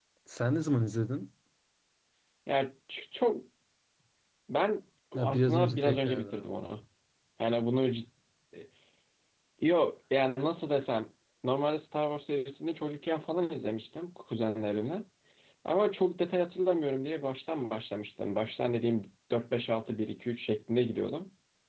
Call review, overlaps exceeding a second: present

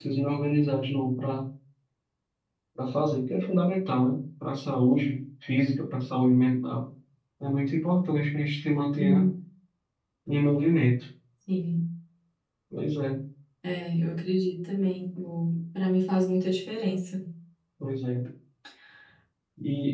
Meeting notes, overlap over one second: none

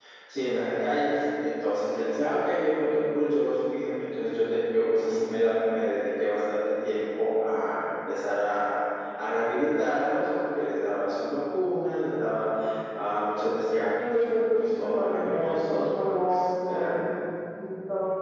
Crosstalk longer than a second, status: present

